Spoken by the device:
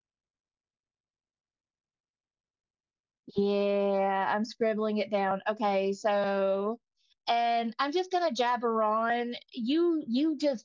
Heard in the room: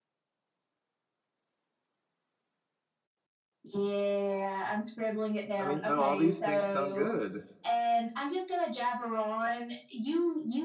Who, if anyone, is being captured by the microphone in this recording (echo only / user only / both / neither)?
both